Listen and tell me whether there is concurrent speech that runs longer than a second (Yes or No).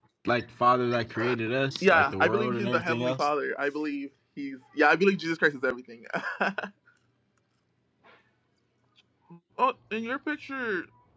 Yes